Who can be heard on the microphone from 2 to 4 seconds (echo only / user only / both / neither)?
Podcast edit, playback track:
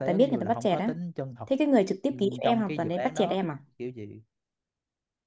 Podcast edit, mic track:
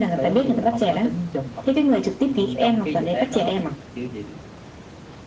echo only